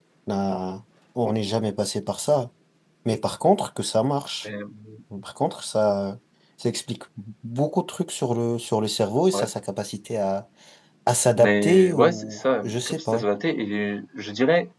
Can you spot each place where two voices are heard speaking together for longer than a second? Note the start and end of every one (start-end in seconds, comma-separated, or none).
11.4-13.2